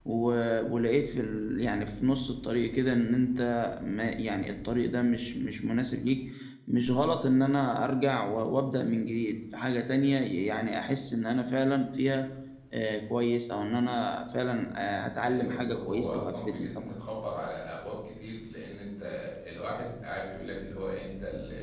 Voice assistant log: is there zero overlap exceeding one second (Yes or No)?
No